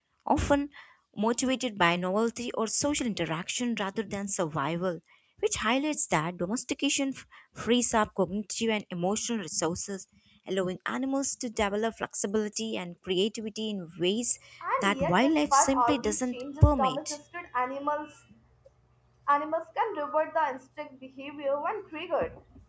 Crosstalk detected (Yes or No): Yes